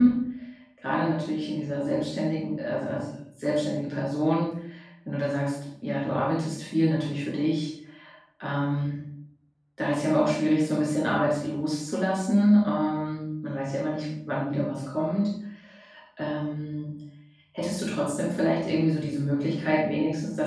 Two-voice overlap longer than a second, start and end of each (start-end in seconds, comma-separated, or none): none